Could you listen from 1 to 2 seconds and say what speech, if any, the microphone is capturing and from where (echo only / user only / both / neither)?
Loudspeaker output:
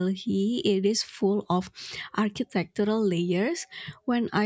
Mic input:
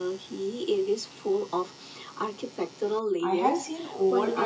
echo only